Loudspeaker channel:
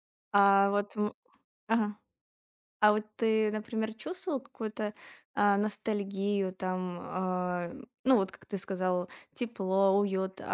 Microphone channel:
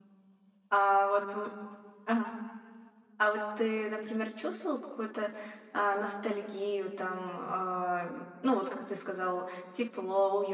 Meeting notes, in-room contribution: none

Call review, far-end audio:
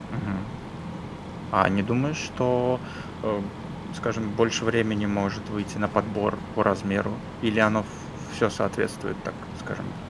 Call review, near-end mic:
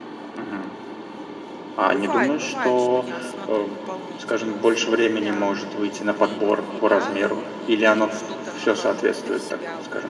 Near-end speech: present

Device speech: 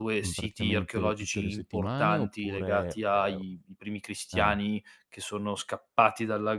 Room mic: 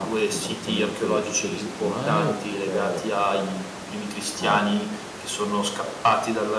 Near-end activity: none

